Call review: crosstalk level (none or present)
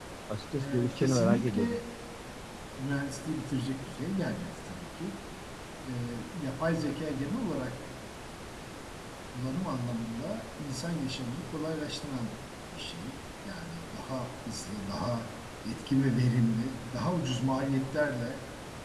present